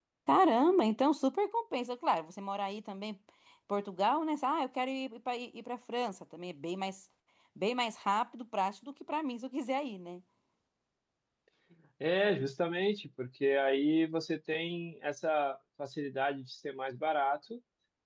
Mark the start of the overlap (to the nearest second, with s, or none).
none